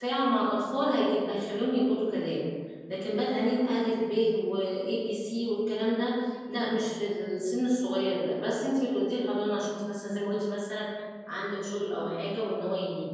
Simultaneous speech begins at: none

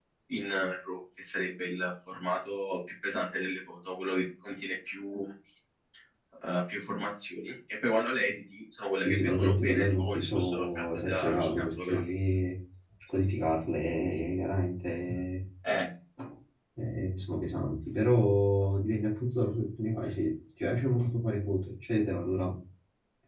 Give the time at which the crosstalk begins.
9.0 s

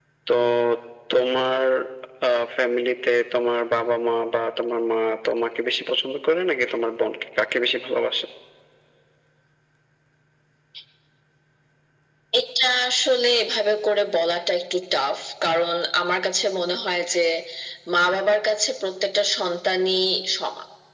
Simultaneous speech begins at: none

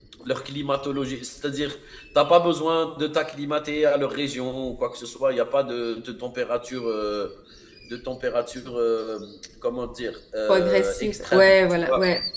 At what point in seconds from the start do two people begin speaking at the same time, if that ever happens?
10.5 s

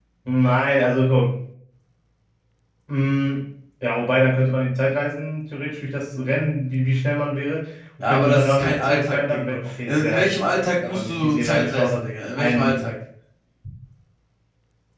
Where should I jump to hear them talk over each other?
8.0 s

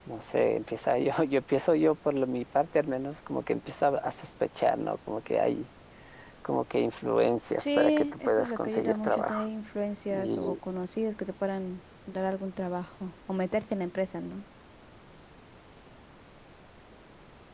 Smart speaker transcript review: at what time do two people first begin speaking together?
7.6 s

